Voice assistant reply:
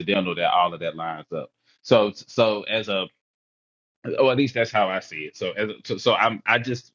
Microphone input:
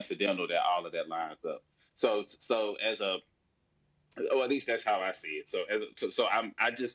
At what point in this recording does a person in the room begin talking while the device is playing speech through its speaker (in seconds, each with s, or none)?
none